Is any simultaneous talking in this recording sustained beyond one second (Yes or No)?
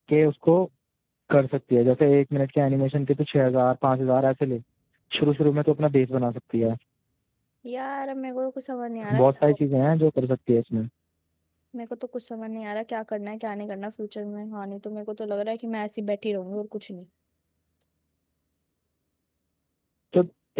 No